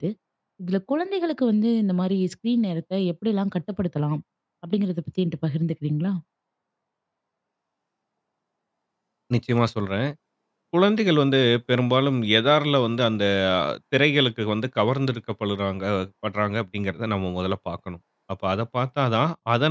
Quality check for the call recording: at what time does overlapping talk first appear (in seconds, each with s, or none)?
none